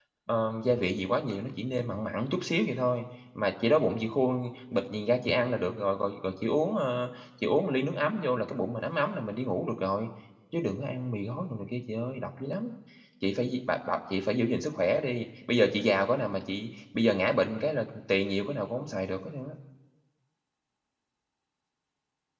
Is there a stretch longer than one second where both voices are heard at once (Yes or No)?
No